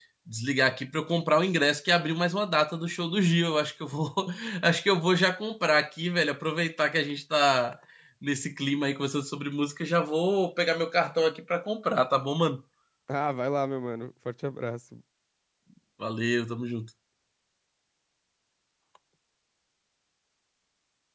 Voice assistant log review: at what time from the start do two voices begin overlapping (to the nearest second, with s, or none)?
none